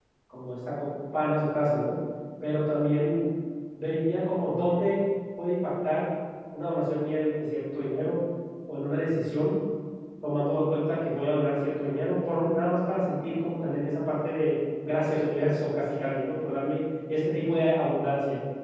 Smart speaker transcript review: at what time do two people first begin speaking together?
none

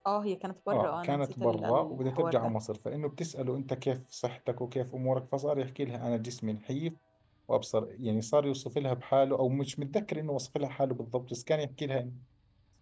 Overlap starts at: 0.7 s

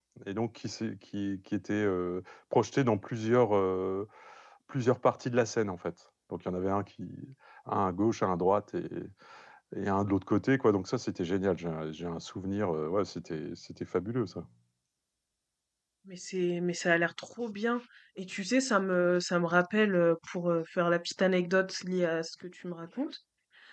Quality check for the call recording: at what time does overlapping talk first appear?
none

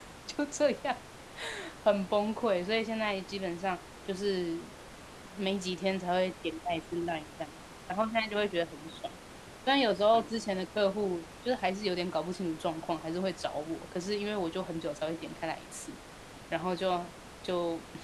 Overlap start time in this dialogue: none

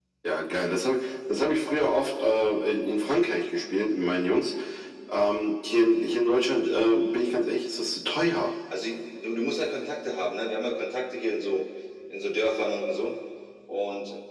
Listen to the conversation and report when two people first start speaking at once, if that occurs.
none

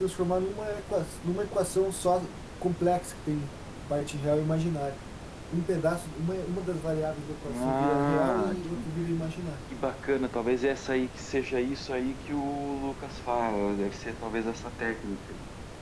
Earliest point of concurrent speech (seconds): 7.5 s

